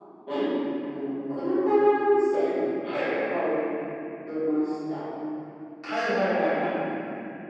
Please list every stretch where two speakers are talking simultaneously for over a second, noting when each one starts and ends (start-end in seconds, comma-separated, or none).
none